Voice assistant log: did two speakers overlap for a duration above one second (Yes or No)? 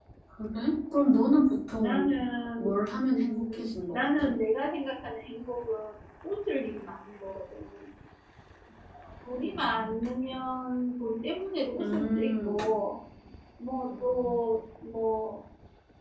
Yes